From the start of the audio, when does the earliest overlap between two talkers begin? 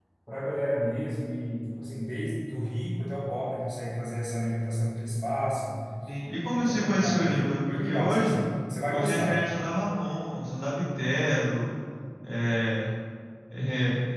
6.6 s

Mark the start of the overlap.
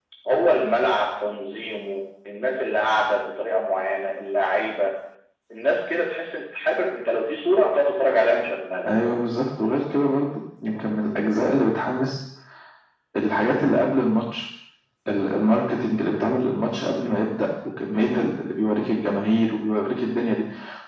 none

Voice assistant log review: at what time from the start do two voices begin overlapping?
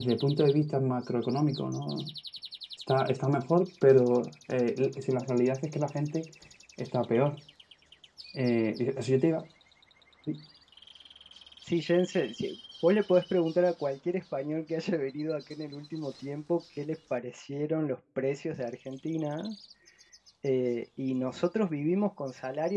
none

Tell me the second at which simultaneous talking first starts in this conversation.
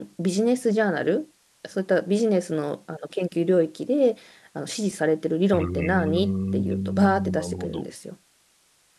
5.5 s

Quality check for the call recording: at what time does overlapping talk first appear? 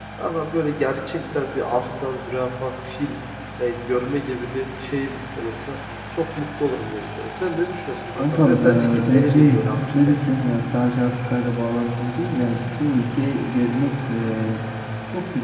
8.2 s

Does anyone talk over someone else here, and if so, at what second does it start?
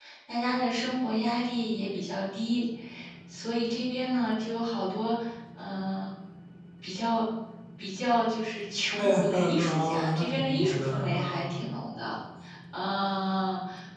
9.0 s

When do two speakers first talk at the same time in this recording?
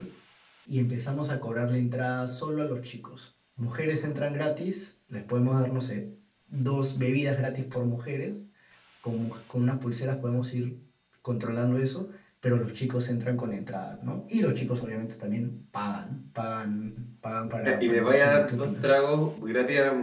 17.6 s

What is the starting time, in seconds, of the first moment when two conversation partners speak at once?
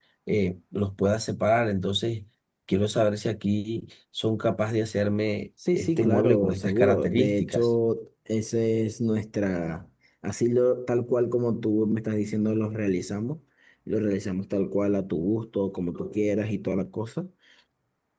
5.6 s

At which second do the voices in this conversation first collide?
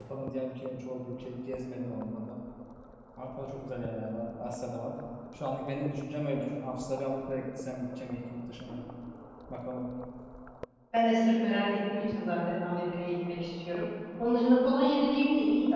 none

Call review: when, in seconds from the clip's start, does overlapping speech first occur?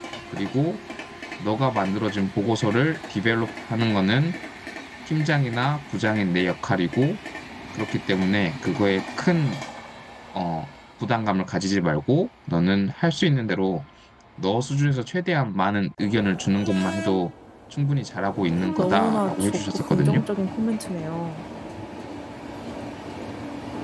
18.8 s

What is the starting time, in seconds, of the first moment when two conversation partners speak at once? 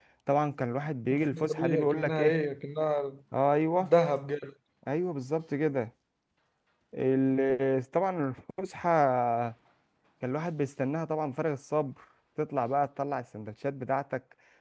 1.1 s

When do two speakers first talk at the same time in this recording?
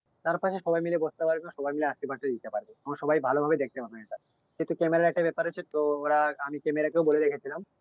none

